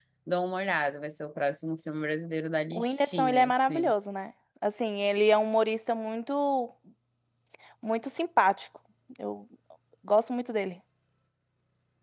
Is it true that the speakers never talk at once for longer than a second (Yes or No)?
No